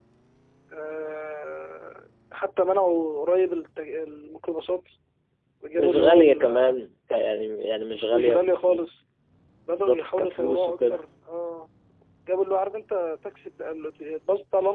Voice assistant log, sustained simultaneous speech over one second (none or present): present